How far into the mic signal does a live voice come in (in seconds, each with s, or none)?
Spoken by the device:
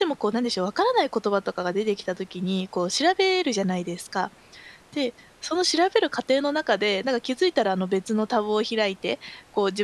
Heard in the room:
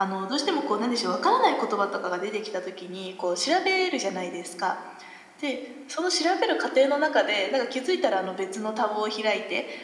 none